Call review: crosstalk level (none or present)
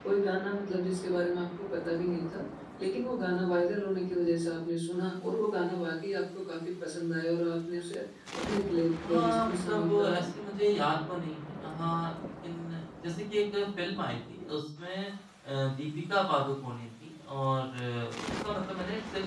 present